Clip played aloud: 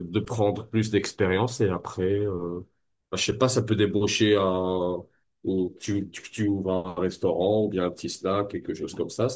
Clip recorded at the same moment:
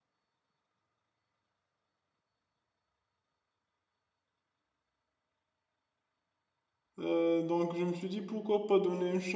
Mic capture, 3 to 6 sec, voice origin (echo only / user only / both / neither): neither